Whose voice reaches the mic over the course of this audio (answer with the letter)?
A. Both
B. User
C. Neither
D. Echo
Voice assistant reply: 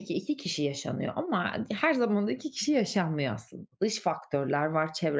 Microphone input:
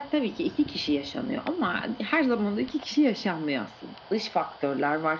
D